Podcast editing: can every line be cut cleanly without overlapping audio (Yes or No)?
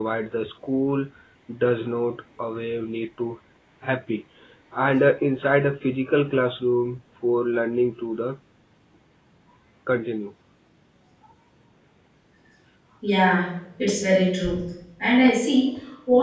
Yes